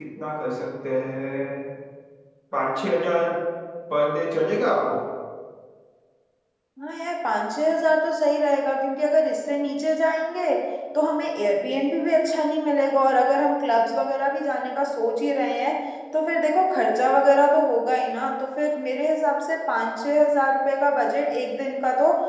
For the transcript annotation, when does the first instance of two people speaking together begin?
none

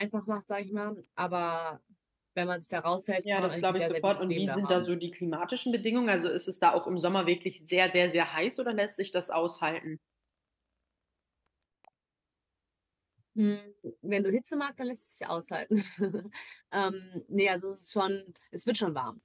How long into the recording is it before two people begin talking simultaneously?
3.2 s

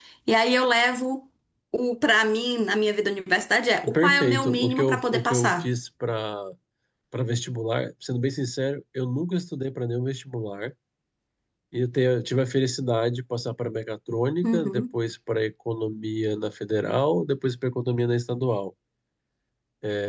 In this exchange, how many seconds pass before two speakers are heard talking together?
3.9 s

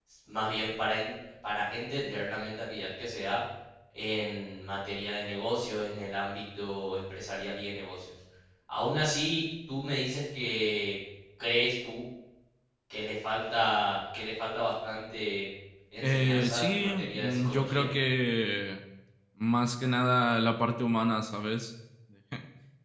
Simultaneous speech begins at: 16.0 s

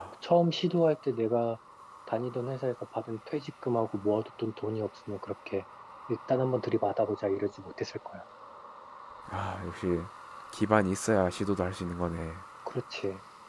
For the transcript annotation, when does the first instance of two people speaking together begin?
none

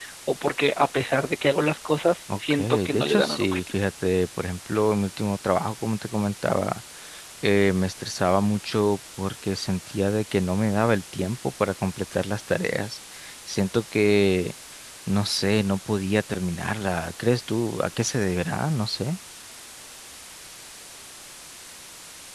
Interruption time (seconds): 2.3 s

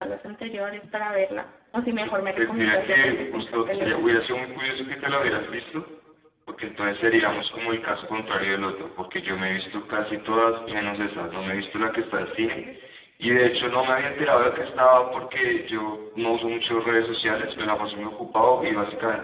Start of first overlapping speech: 2.4 s

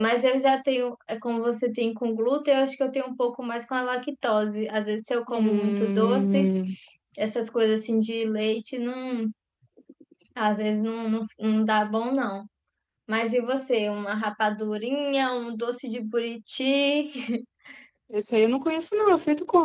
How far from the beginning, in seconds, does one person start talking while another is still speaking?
5.3 s

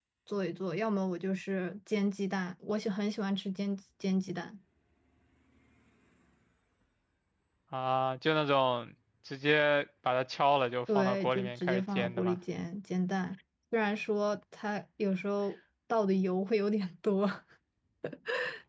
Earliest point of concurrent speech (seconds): 10.9 s

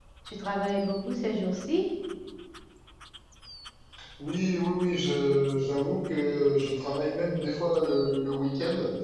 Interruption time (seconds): none

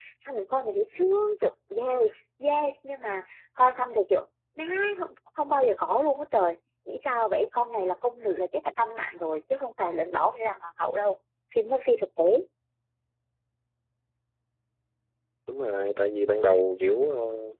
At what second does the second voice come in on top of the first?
none

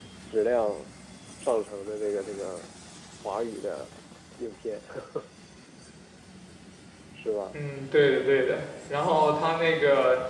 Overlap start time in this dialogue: none

